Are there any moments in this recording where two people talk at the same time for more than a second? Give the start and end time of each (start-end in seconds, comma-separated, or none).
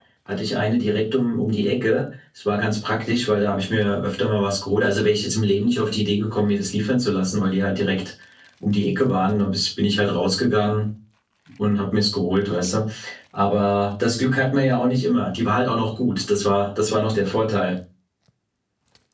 none